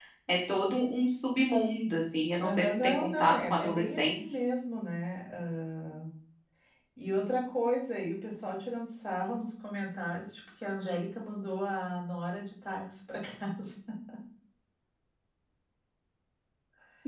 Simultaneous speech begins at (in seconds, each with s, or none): 2.4 s